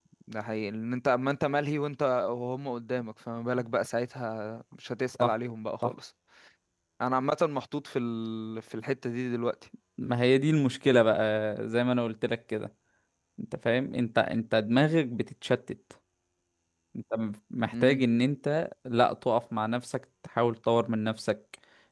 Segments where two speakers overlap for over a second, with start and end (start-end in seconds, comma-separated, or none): none